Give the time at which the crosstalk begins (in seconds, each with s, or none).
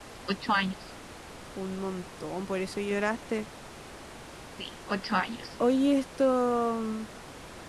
none